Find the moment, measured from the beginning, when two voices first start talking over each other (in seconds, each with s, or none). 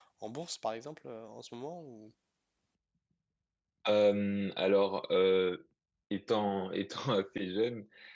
none